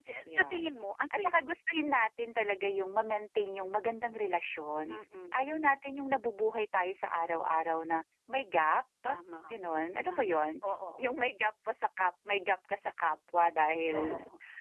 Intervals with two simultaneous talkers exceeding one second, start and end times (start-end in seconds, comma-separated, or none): none